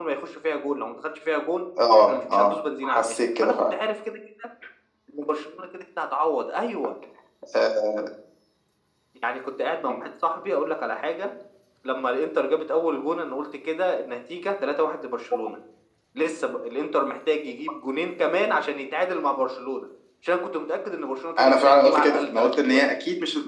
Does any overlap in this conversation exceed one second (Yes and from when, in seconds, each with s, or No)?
Yes, from 2.0 s